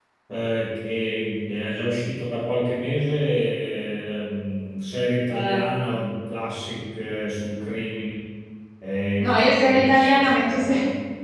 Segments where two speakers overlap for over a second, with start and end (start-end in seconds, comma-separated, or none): 9.2-10.7